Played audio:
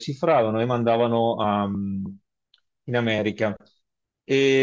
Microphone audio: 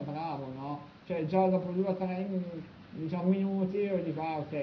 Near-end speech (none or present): present